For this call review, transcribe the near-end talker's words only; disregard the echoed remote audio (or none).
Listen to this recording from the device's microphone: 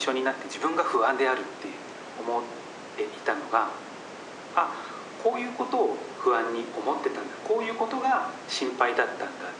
none